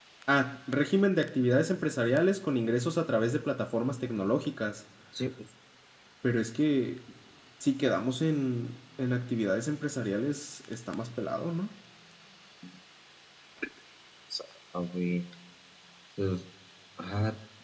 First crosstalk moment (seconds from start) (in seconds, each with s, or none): none